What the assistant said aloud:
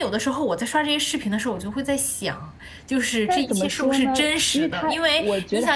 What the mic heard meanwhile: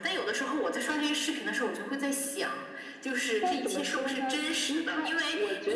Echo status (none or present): present